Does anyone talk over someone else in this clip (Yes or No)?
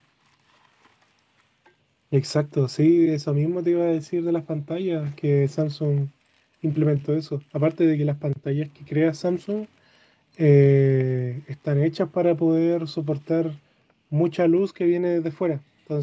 No